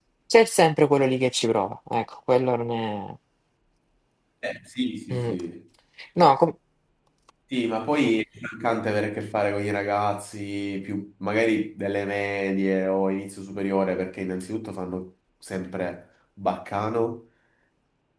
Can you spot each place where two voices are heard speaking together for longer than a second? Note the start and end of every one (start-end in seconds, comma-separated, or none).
none